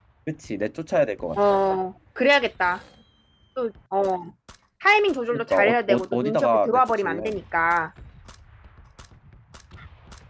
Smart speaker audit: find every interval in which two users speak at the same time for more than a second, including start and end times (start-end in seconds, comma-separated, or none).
5.3-7.4